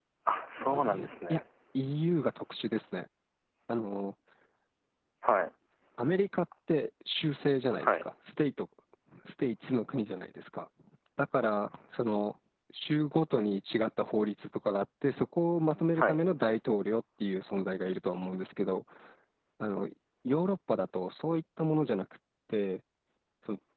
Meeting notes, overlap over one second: none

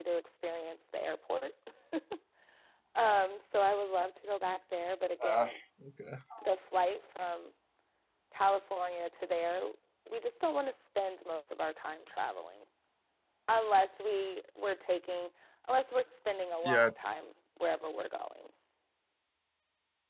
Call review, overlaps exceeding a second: none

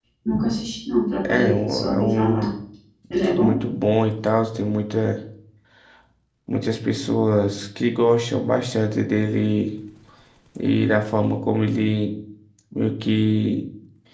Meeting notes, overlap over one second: present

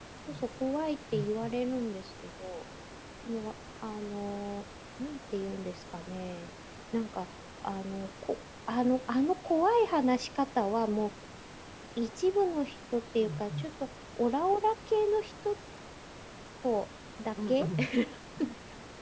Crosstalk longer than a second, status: none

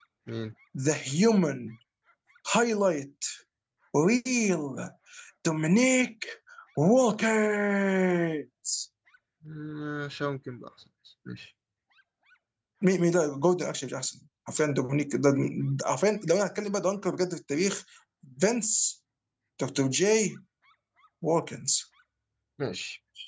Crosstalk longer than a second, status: none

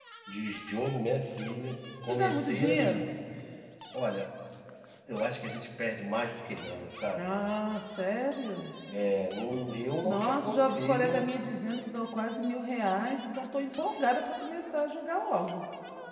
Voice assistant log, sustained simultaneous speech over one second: present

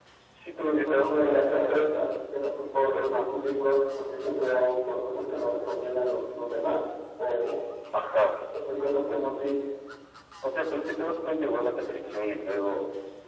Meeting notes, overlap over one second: present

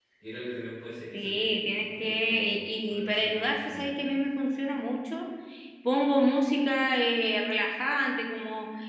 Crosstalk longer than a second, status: present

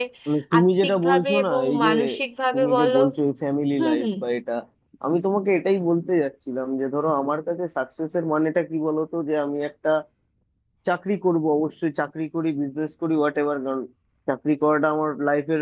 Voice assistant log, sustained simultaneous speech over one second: present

